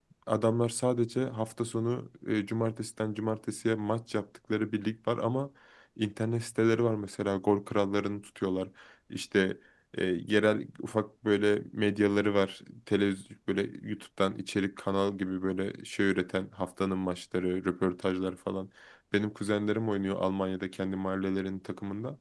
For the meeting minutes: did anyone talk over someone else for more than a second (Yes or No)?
No